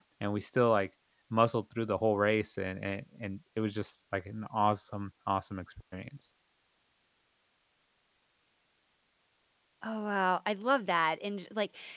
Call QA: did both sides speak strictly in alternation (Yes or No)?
Yes